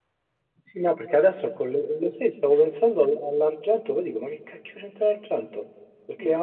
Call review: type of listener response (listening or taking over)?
listening